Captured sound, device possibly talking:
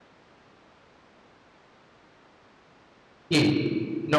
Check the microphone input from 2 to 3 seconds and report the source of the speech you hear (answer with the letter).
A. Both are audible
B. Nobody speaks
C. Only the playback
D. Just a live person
B